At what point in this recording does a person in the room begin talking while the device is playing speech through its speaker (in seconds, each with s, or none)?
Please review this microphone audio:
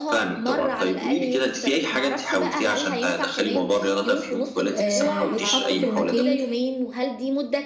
4.7 s